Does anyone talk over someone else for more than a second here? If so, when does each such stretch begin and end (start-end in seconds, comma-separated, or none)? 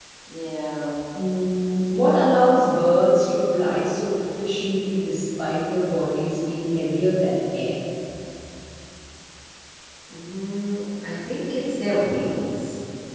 none